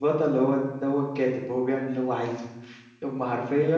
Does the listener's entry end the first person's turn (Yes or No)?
No